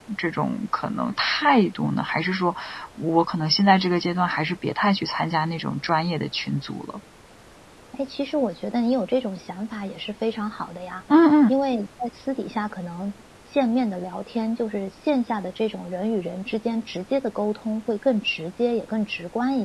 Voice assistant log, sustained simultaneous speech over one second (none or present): none